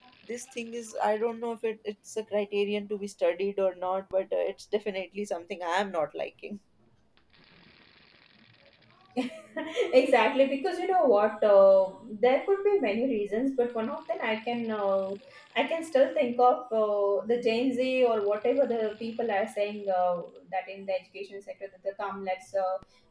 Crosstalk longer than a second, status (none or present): none